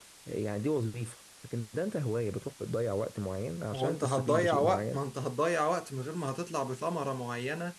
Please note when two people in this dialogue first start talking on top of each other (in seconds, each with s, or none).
3.7 s